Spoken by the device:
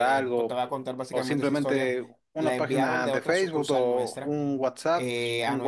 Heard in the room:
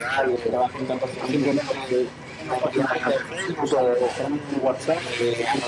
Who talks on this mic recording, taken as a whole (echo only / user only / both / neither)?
echo only